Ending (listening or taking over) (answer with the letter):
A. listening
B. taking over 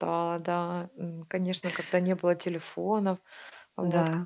A